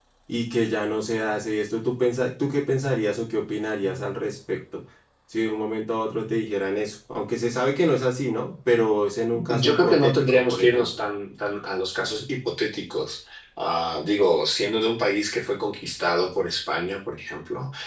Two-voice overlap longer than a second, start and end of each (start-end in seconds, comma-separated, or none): 9.5-11.0